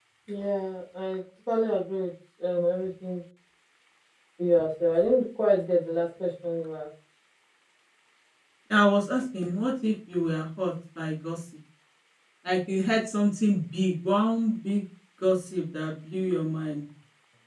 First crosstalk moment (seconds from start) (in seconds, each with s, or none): none